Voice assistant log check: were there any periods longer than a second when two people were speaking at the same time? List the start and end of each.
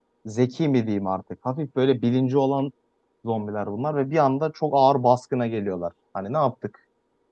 none

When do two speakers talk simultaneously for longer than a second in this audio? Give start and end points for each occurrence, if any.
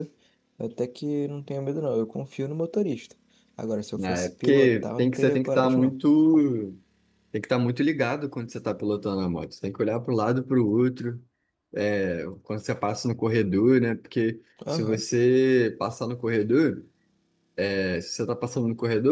4.0-5.9

